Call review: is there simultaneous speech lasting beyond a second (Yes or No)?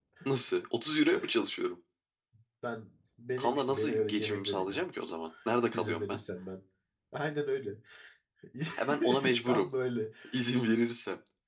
Yes